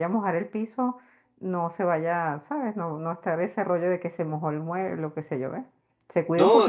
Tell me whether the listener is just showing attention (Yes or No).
No